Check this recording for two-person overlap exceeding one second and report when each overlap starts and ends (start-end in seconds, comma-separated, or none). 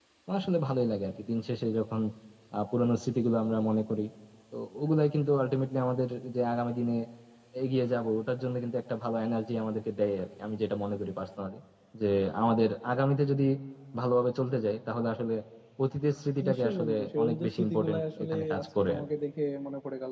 16.5-19.0